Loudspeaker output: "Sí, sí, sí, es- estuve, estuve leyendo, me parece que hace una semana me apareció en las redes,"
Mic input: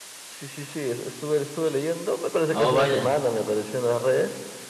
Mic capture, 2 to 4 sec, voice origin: both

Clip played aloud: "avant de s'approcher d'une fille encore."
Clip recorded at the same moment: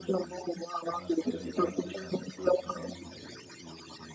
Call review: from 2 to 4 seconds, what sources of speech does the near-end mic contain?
both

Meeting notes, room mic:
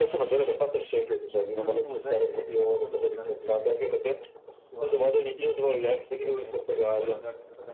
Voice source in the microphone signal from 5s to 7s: both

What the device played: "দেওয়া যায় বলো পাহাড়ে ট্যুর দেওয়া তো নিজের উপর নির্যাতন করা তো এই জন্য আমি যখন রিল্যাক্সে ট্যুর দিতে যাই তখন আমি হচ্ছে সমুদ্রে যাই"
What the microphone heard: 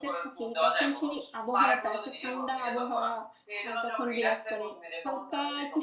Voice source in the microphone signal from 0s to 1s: both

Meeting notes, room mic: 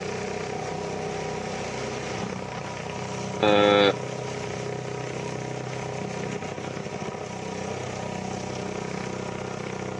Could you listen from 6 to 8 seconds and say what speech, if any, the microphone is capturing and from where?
neither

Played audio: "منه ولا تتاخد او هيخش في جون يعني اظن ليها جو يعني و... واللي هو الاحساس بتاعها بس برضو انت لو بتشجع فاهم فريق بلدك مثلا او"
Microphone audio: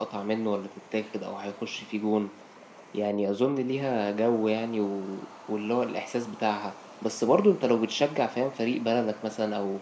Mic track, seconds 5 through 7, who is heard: echo only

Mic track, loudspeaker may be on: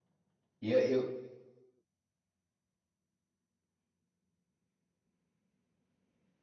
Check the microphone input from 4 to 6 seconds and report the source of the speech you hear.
neither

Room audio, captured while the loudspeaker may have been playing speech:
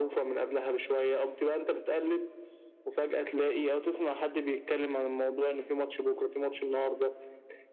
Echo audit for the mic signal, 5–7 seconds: echo only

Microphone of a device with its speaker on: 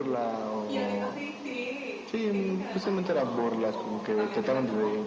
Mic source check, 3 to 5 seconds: both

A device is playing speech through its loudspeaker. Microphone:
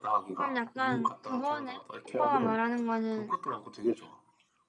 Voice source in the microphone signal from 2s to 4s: both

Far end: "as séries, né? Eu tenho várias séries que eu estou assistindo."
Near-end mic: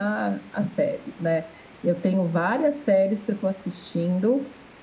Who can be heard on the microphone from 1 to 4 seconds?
echo only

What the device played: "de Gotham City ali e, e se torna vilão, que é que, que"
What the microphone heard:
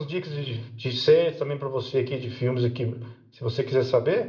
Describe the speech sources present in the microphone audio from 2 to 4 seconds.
user only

